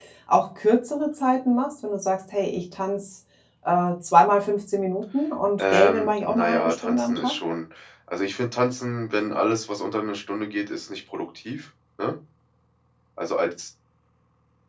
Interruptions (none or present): present